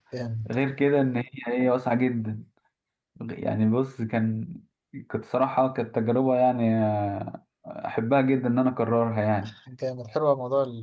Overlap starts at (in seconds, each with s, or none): none